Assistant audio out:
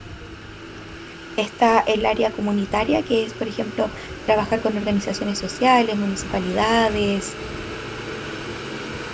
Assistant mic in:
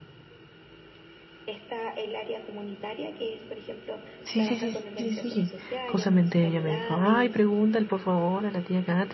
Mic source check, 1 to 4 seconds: echo only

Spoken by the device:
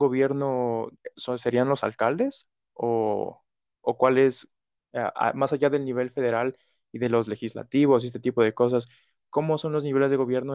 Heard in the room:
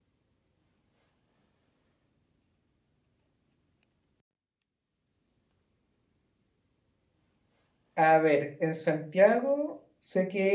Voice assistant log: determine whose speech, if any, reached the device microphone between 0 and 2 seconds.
neither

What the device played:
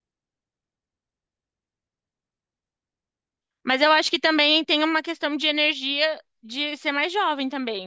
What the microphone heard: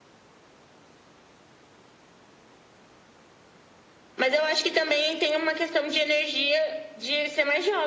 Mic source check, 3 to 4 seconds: neither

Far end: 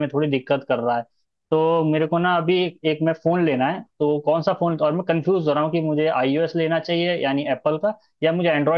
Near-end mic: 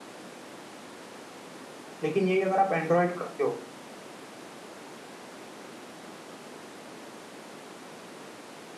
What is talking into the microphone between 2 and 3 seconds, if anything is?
user only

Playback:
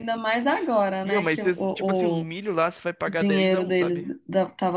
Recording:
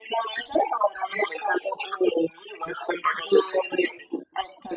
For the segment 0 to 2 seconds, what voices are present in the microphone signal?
echo only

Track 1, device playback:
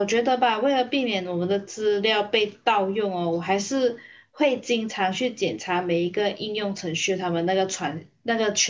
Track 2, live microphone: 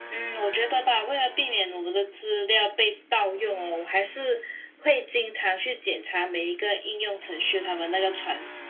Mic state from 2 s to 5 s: echo only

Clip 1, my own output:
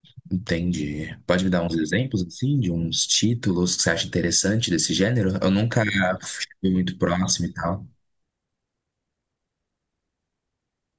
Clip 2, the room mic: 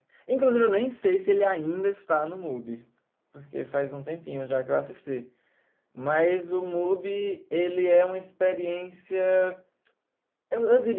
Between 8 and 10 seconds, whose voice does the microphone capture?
user only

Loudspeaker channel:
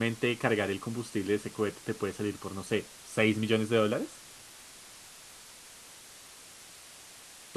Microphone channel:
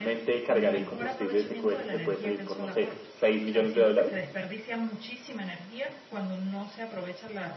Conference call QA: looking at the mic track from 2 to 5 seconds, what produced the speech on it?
both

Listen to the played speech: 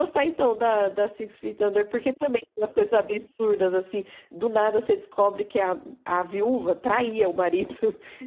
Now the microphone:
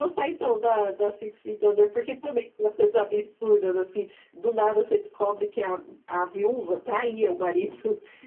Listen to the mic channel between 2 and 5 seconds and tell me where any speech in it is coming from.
echo only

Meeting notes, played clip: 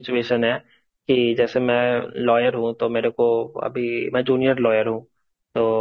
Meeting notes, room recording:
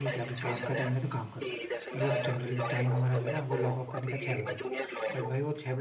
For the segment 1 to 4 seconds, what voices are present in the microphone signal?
both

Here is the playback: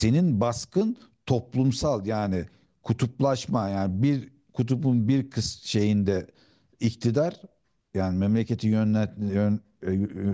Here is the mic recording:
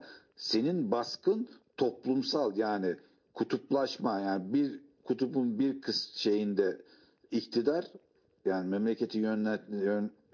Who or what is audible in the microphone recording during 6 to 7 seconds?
echo only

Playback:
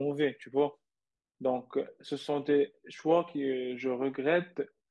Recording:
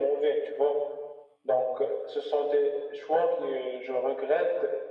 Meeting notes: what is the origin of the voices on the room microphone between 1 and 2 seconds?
echo only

